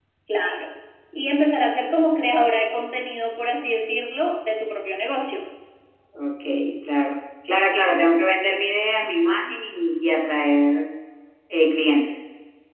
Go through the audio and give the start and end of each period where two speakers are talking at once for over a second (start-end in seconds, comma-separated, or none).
none